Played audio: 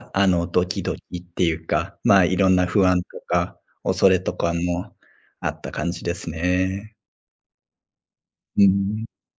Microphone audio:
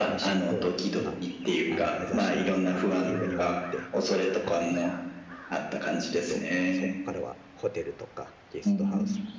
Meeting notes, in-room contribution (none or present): present